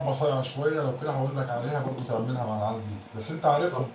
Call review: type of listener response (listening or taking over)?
taking over